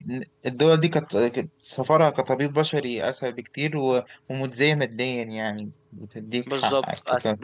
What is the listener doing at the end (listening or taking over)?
taking over